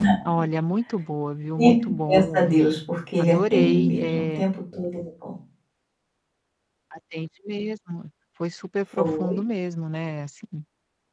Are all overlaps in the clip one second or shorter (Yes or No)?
No